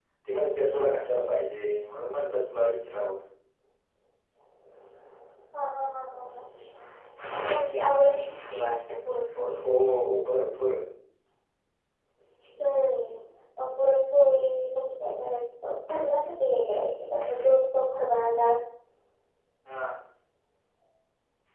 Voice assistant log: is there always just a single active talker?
Yes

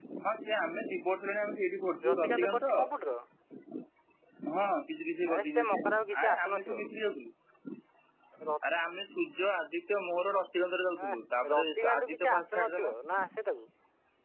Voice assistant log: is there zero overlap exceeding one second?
No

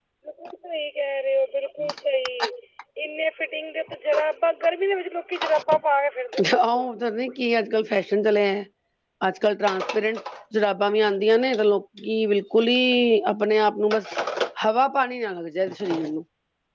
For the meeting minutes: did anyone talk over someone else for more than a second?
No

